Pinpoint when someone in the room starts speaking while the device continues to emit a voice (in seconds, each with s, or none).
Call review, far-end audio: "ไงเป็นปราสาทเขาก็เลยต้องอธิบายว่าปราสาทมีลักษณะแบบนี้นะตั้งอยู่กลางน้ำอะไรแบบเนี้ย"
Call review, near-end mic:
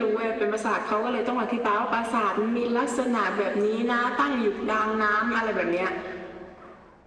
none